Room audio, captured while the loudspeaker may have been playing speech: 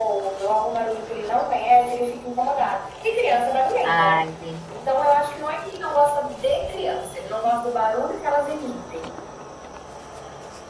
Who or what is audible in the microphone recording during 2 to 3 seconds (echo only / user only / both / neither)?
echo only